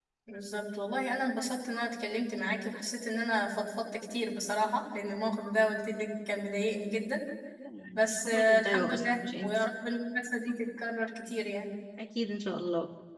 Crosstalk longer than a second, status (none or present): present